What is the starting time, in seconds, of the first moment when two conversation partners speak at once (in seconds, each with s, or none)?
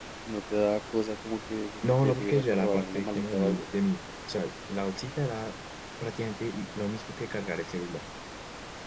1.8 s